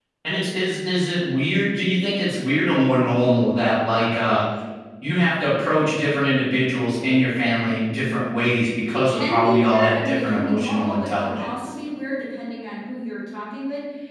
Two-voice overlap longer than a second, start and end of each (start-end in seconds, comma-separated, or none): 8.9-11.5